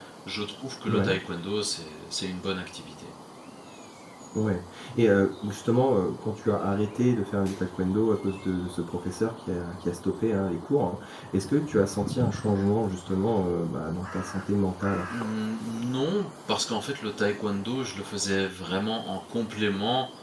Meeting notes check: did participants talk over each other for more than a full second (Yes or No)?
No